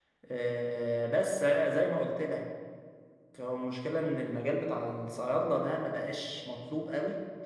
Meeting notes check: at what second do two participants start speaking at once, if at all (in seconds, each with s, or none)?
none